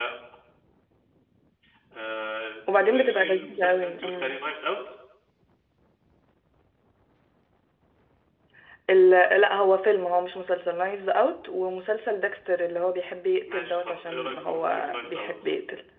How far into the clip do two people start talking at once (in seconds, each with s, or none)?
2.7 s